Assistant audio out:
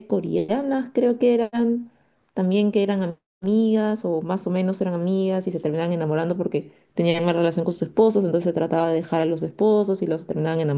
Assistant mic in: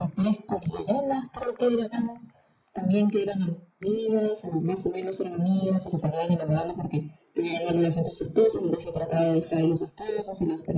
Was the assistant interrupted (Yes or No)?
No